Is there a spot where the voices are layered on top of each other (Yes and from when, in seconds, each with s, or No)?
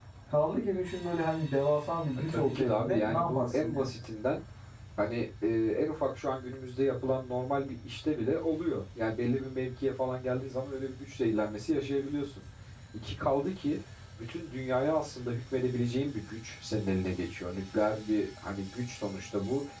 Yes, from 2.3 s